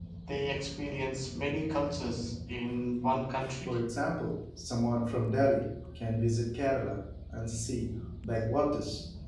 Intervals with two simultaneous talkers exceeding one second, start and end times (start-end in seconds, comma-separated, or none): none